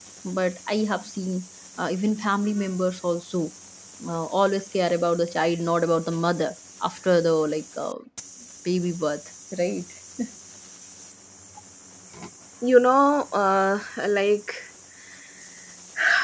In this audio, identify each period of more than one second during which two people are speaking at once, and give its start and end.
none

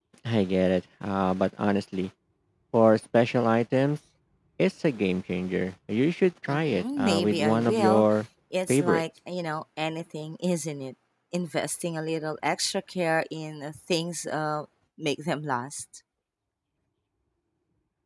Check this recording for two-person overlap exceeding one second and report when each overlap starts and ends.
6.5-8.1

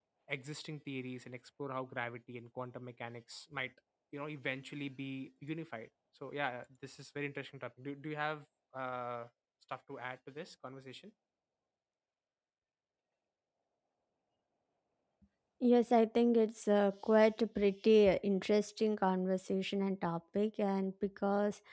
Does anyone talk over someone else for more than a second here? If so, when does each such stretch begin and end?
none

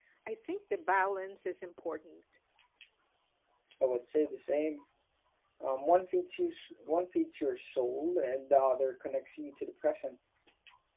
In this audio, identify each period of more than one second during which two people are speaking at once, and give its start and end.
none

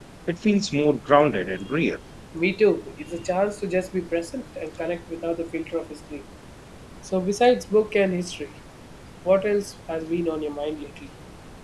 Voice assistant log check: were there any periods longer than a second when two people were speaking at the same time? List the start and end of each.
none

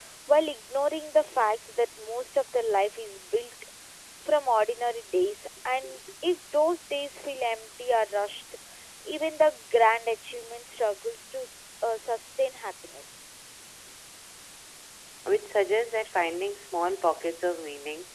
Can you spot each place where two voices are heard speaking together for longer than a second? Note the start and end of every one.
none

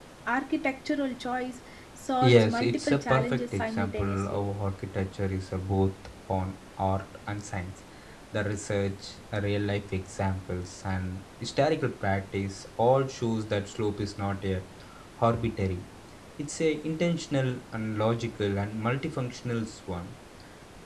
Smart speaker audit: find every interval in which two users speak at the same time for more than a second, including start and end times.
2.2-4.4

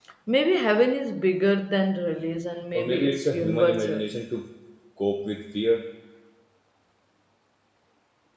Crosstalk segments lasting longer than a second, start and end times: 2.7-4.1

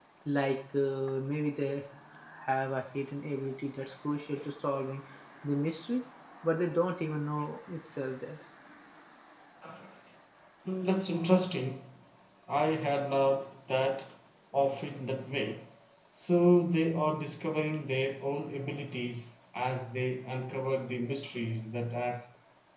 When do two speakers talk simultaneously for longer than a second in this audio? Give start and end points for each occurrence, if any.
none

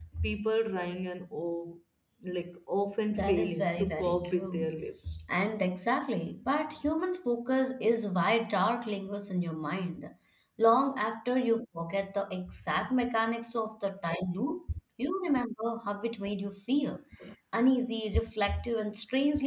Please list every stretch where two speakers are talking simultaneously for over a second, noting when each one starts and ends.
3.1-4.7

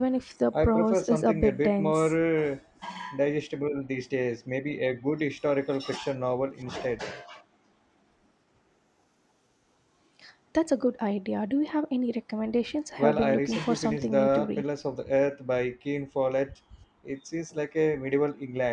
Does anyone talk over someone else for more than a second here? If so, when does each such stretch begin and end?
0.6-2.1, 13.0-14.6

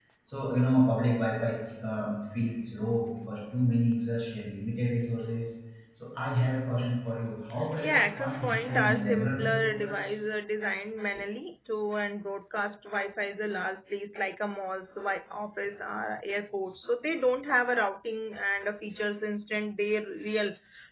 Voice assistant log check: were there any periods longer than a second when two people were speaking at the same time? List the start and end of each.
7.8-10.1

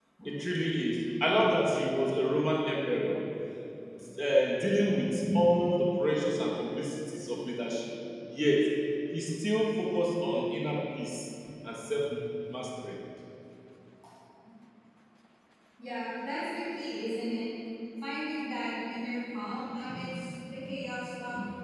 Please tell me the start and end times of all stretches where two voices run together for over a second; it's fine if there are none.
none

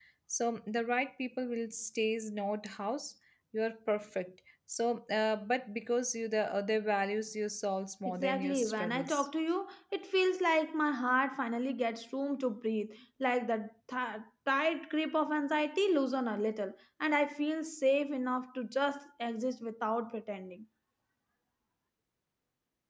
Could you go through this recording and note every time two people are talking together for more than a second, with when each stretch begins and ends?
8.1-9.3

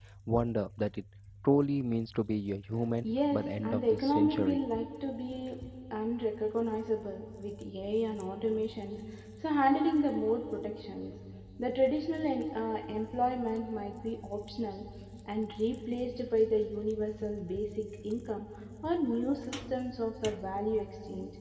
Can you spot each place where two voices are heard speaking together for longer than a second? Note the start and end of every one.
3.0-4.6

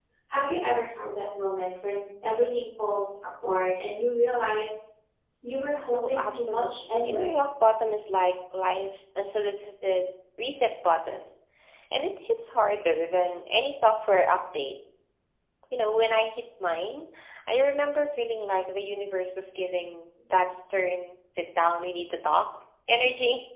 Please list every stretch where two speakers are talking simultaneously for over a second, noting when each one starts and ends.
5.9-7.4

